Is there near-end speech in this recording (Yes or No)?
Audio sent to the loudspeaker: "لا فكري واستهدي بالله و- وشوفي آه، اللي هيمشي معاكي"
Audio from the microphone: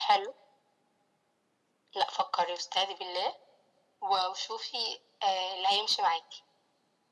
No